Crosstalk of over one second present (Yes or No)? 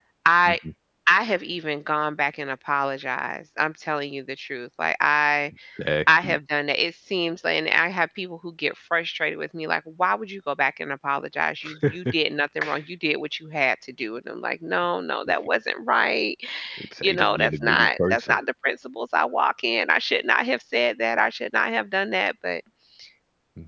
Yes